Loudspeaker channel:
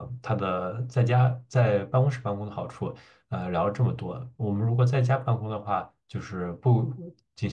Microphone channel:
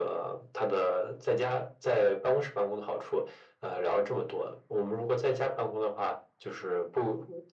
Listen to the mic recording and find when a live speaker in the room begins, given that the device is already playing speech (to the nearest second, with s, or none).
none